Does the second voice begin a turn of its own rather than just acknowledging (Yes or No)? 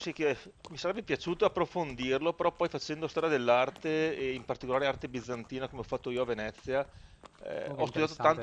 No